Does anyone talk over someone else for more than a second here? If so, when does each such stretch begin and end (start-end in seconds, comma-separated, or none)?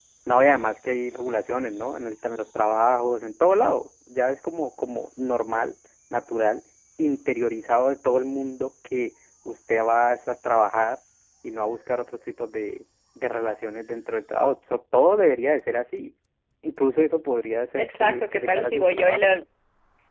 17.8-19.3